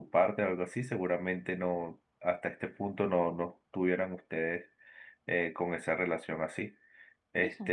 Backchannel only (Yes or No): Yes